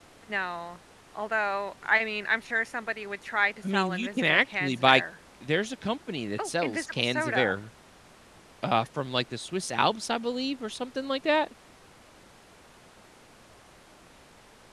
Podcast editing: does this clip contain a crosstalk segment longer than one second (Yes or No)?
Yes